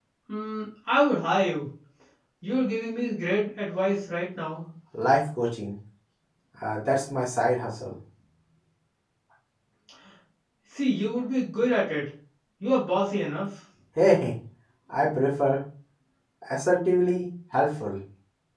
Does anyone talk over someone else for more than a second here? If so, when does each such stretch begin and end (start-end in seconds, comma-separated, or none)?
none